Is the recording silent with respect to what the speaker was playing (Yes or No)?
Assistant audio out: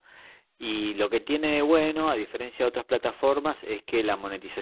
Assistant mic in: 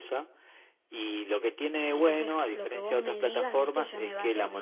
No